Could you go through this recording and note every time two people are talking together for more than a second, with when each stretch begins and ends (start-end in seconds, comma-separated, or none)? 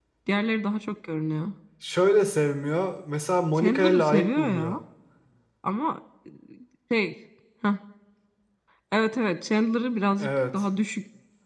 3.5-4.8